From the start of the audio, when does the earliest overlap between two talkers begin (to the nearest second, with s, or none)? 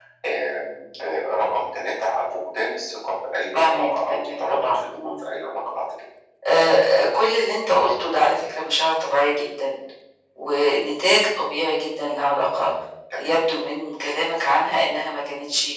4 s